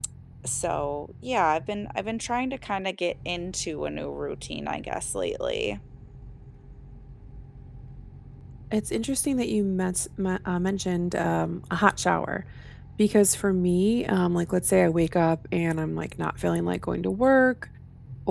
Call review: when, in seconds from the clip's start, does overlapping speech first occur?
none

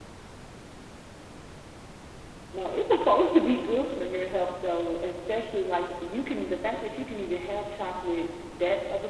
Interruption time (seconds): none

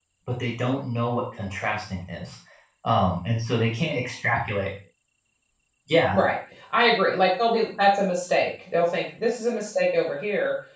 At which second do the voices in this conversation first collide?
none

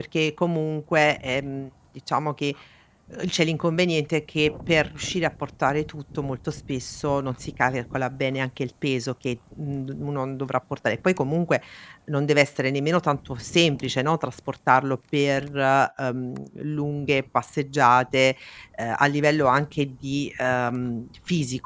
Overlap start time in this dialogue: none

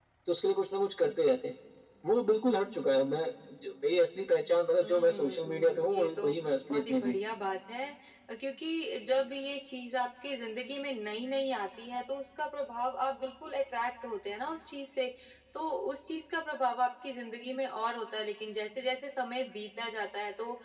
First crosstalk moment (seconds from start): 5 s

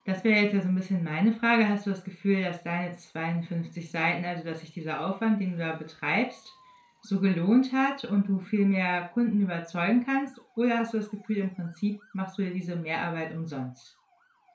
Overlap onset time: none

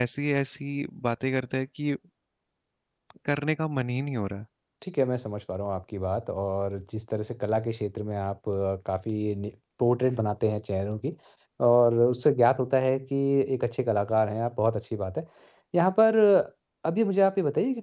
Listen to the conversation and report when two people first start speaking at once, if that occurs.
none

